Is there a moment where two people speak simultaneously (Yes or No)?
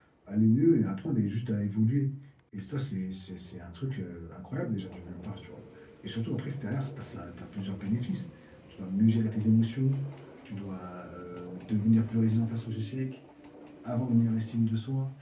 No